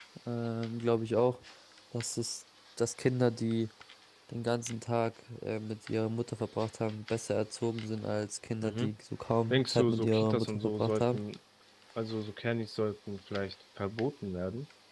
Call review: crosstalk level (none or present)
present